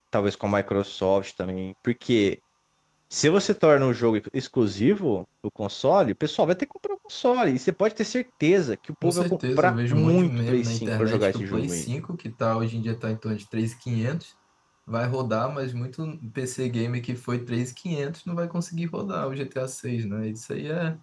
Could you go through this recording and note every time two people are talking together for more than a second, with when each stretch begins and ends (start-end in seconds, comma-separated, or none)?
9.0-11.9